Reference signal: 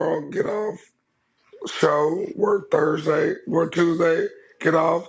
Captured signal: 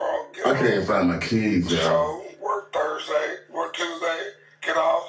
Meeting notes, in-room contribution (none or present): present